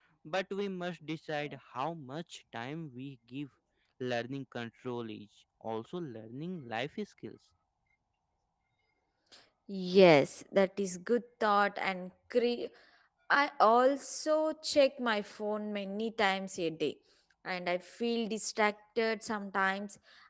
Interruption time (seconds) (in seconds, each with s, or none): none